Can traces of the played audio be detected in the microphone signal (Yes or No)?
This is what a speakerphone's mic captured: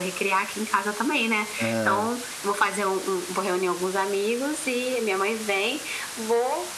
Yes